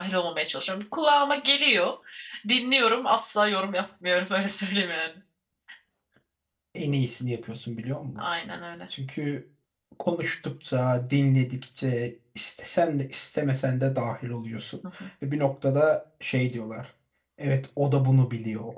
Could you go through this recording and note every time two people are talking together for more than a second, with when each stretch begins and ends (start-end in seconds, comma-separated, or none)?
none